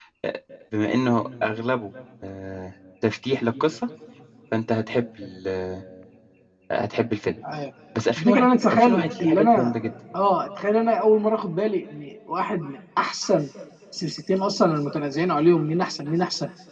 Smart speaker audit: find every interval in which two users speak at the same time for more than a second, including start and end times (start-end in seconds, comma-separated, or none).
8.2-9.7